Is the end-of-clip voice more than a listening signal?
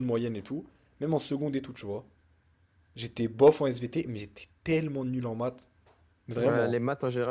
Yes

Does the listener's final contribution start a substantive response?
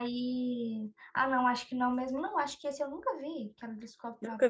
Yes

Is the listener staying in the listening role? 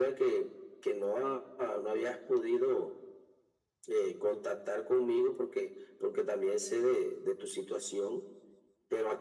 Yes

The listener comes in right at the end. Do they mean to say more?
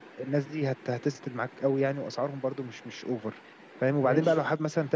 No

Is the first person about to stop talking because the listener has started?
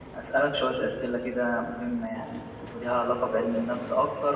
No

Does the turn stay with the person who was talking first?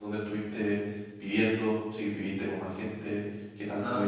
No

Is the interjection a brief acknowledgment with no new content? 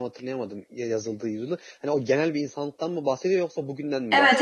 No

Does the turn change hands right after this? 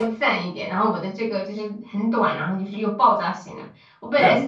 No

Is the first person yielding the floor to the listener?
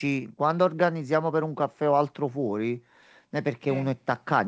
No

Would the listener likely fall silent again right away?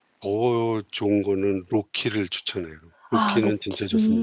No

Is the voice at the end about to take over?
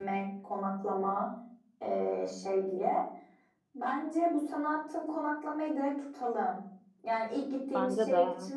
No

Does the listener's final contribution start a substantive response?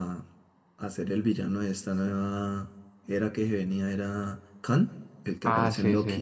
Yes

